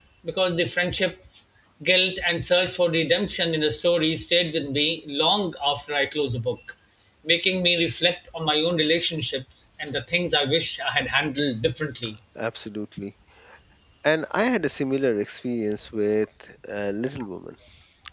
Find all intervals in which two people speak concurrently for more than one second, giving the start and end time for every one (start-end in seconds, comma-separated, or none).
none